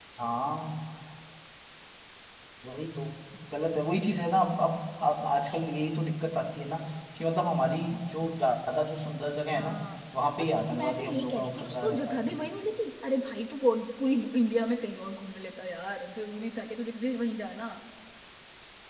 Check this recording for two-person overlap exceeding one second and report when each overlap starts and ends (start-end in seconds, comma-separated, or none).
10.4-12.4